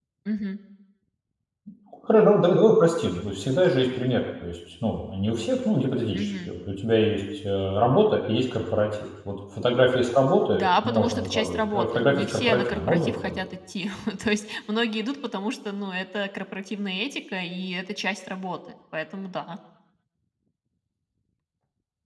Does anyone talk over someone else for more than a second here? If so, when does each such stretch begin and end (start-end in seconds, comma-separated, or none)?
10.5-13.4